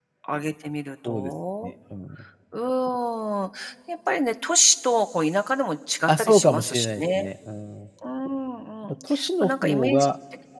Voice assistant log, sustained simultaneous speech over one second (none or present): present